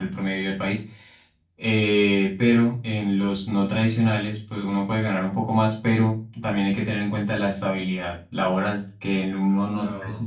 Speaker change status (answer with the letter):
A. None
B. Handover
A